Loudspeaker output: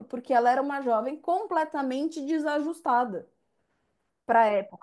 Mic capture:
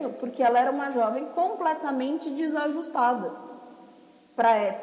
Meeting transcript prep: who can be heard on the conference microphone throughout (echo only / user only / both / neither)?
echo only